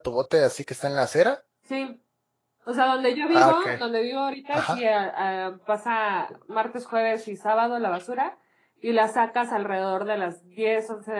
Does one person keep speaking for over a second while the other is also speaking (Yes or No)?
No